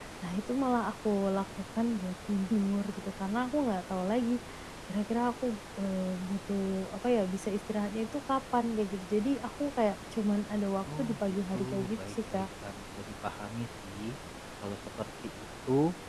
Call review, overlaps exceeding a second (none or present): present